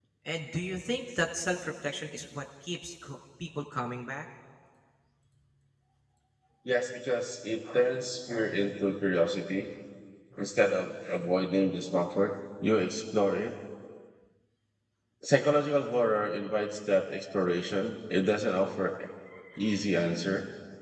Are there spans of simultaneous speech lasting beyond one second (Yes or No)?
No